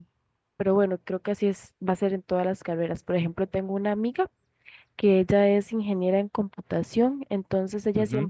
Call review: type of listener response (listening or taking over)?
listening